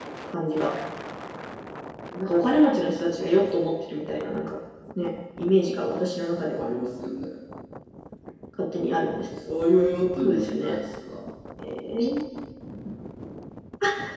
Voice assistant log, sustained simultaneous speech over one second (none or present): none